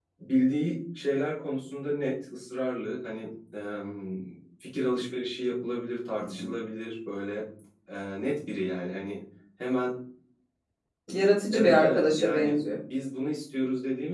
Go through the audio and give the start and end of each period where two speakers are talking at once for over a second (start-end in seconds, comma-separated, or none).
11.5-12.8